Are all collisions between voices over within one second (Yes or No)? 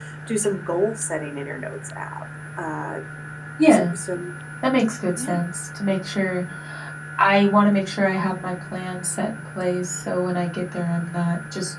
Yes